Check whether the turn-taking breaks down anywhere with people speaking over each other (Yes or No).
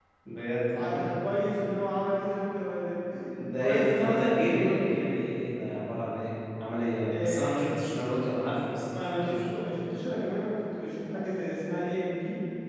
Yes